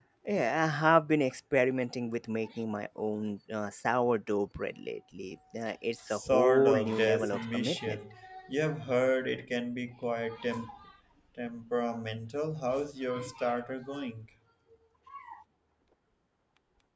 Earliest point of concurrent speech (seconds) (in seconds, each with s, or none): 6.1 s